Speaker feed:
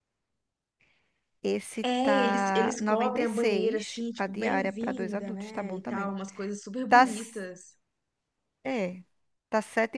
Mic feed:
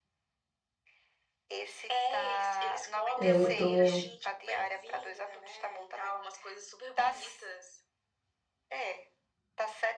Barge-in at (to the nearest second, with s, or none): 3 s